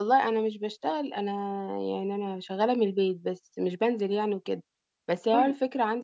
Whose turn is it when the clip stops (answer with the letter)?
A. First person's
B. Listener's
A